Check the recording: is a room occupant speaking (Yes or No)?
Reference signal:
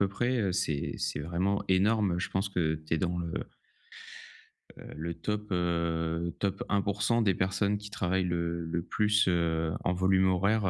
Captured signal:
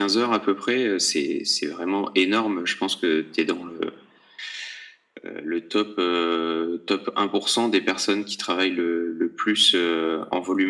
No